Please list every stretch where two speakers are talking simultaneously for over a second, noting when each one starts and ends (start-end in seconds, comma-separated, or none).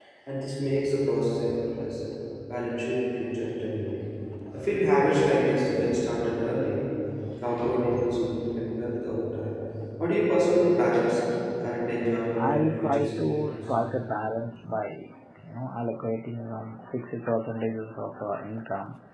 12.4-13.6